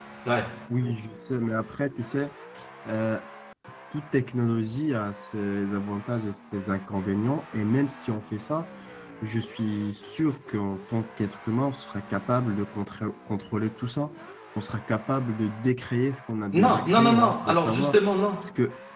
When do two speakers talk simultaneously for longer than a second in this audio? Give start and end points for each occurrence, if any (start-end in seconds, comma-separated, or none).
16.6-18.0